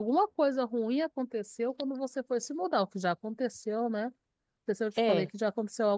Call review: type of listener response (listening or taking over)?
listening